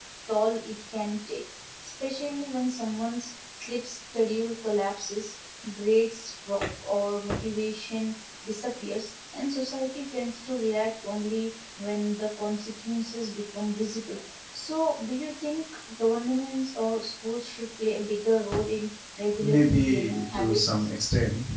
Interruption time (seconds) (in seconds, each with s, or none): 19.3 s